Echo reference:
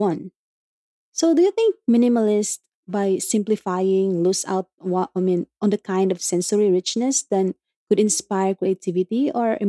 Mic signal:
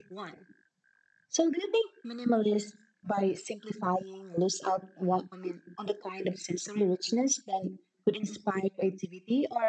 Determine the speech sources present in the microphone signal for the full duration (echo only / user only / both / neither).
echo only